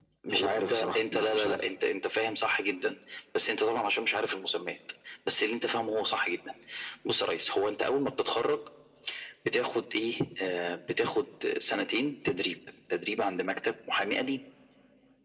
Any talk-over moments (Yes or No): Yes